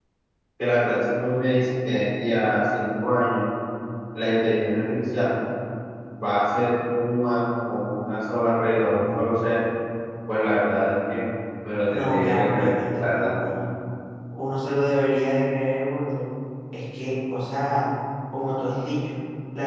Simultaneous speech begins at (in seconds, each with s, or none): 11.9 s